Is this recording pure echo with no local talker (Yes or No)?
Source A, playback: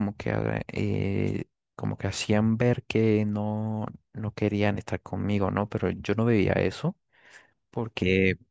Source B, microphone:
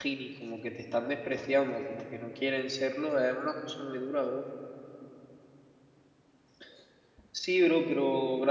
No